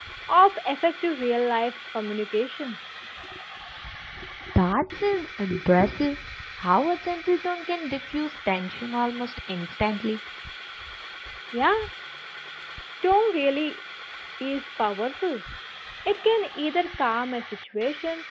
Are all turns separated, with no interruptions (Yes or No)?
Yes